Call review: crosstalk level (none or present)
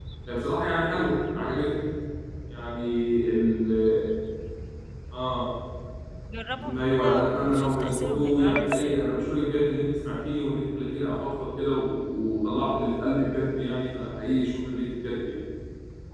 present